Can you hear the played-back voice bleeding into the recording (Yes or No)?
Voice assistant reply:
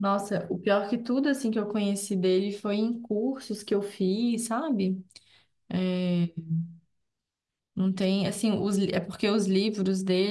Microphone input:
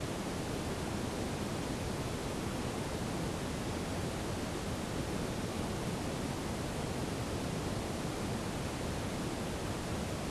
No